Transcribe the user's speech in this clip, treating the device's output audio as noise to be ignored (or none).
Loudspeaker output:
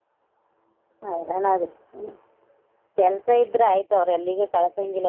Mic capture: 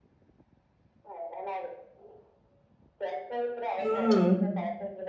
ಹ್ಮ್